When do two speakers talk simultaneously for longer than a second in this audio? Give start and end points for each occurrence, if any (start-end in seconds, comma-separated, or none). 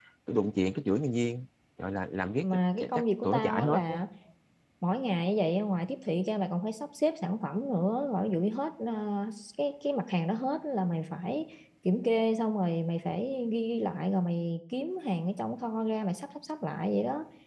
2.4-4.0